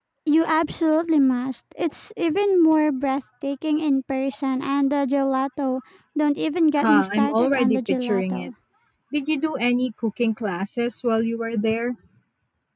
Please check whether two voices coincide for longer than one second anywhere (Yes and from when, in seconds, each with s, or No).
Yes, from 6.8 s